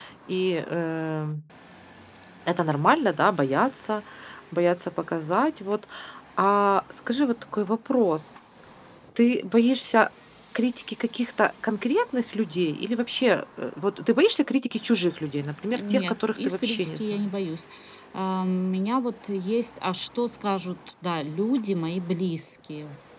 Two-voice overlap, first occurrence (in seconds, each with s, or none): 15.6 s